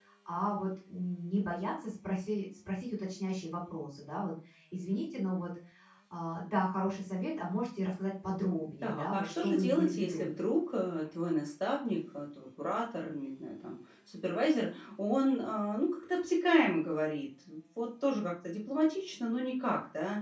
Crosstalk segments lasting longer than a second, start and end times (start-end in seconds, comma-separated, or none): 8.8-10.3